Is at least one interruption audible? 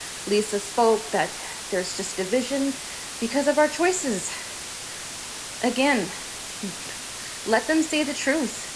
No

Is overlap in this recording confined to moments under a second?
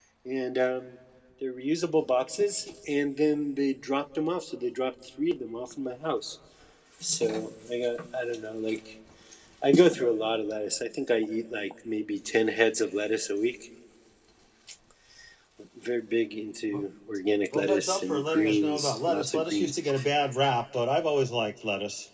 No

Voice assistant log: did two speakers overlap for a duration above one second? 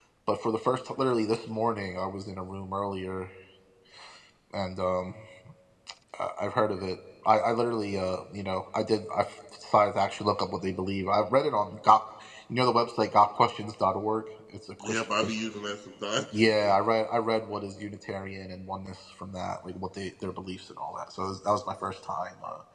No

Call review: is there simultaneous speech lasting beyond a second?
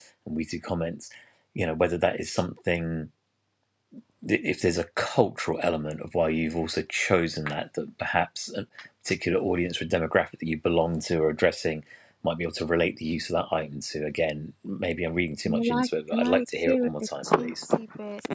Yes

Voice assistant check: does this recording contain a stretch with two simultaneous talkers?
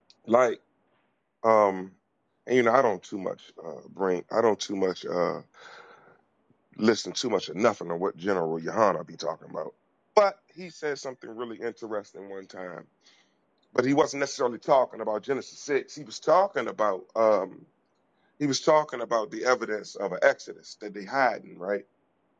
No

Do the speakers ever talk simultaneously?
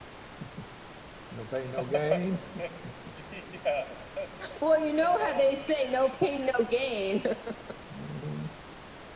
Yes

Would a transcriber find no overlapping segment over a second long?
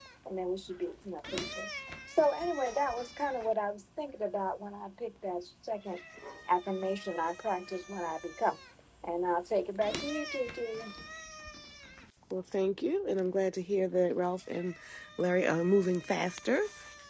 Yes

